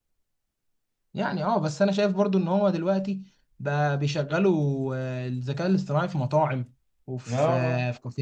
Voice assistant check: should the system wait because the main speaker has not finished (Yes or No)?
Yes